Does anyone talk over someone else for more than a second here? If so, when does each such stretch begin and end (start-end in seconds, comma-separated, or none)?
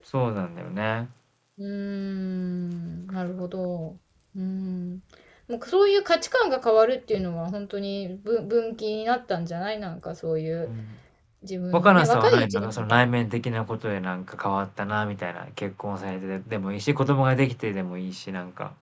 11.7-13.0